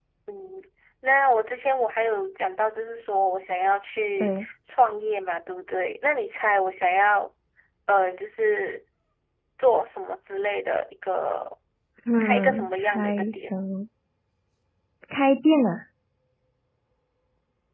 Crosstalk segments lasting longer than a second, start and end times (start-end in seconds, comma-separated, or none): 12.2-13.5